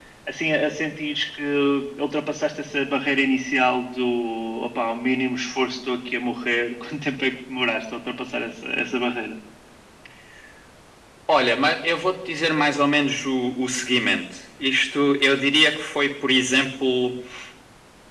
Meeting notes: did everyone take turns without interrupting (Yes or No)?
Yes